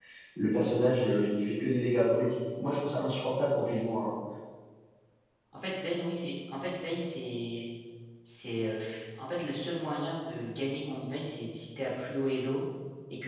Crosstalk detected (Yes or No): No